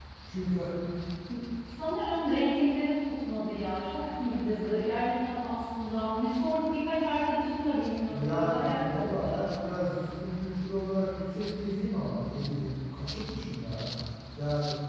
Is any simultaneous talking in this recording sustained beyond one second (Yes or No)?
Yes